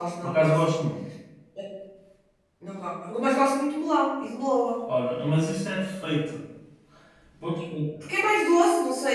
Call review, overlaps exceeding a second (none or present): none